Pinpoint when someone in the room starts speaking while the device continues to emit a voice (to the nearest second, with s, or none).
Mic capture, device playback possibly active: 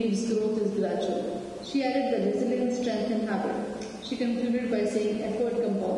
none